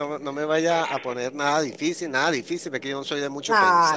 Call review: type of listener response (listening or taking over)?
taking over